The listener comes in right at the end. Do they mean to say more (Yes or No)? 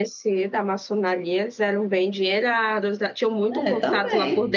No